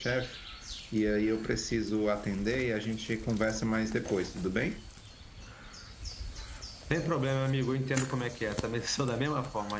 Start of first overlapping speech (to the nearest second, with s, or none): none